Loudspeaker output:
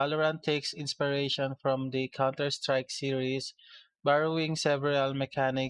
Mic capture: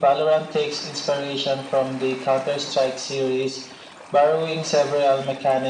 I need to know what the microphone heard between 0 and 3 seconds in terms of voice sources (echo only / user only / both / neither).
echo only